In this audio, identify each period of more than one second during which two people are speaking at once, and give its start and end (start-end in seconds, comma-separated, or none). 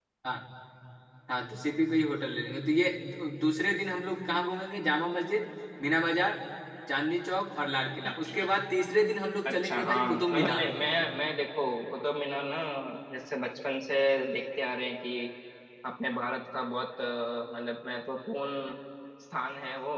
9.4-10.7